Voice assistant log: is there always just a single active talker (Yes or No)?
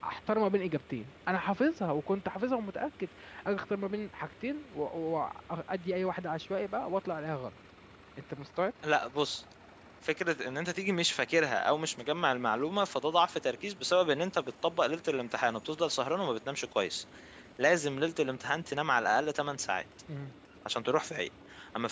Yes